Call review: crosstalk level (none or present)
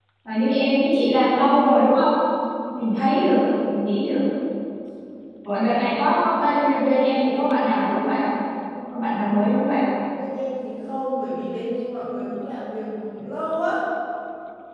none